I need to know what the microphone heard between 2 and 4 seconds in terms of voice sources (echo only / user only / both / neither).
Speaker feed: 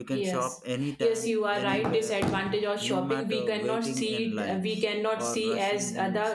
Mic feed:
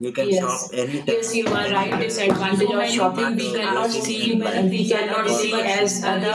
both